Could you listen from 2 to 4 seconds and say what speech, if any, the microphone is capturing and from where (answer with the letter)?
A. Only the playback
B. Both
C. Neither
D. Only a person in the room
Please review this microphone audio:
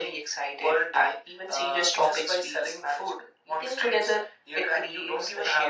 A